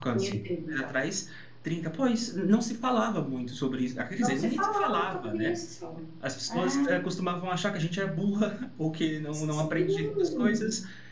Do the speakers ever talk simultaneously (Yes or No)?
Yes